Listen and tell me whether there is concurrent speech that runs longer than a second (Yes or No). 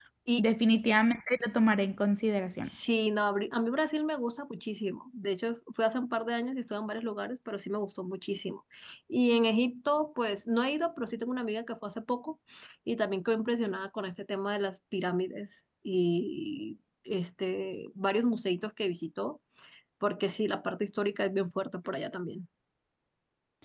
No